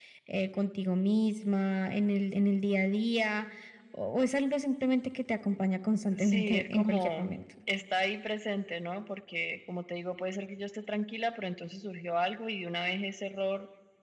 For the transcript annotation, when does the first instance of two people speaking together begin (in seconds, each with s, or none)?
6.1 s